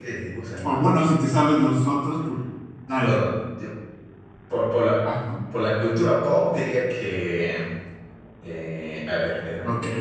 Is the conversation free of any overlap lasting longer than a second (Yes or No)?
Yes